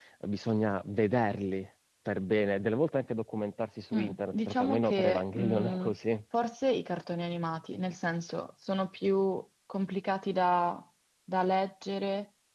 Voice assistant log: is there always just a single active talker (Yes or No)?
No